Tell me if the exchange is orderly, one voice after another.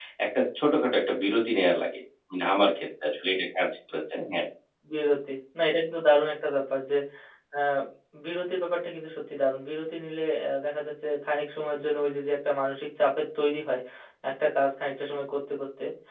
Yes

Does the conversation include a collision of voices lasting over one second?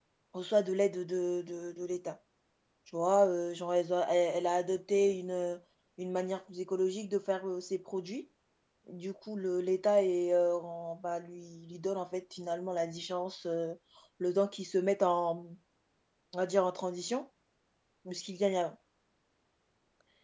No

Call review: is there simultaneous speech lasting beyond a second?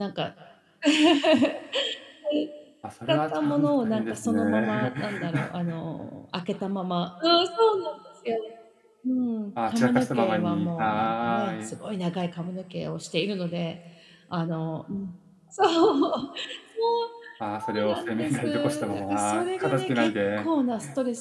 Yes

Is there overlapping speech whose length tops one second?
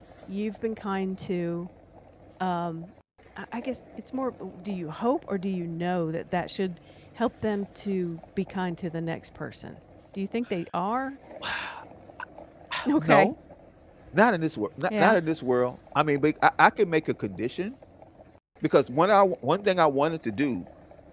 No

